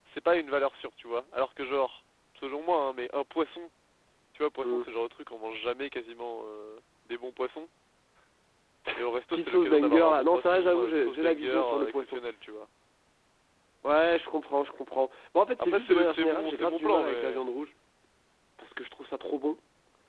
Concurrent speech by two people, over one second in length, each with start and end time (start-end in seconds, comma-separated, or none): 9.3-12.2, 15.6-17.4